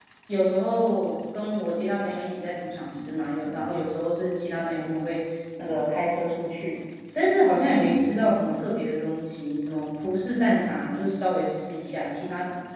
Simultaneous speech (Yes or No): No